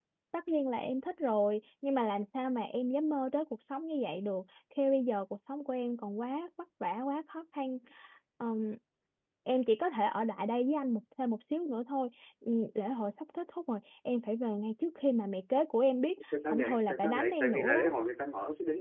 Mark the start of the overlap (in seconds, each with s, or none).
16.3 s